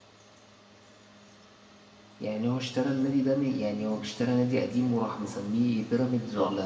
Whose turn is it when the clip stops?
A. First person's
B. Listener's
B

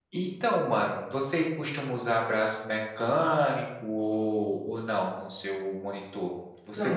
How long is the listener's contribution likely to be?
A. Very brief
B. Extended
B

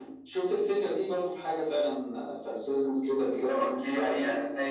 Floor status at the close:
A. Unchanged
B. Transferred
B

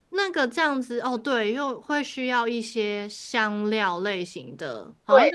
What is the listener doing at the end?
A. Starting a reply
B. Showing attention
A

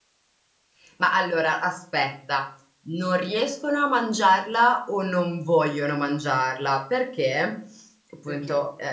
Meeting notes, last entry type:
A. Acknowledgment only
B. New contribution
A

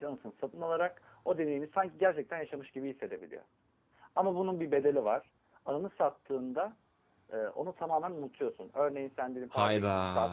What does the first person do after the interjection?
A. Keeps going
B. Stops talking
A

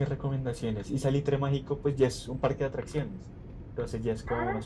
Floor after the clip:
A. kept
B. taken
A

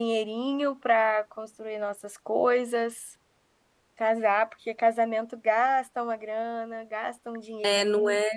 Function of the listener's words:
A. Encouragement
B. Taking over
B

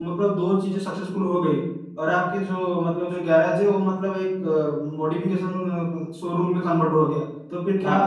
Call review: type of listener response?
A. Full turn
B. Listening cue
B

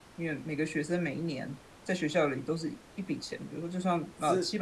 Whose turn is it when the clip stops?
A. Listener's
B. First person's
A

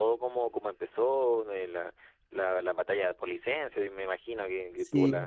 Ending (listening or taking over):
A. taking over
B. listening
A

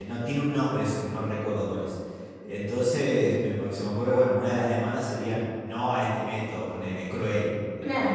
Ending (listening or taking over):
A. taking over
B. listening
A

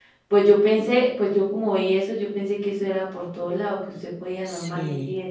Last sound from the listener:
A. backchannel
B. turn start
A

